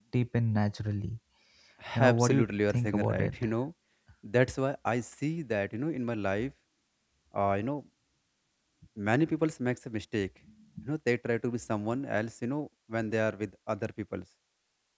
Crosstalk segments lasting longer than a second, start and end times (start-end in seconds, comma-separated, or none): 2.1-3.3